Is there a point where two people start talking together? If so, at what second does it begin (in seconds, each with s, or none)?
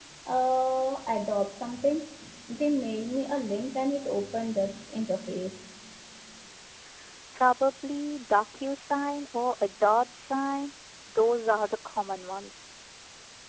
none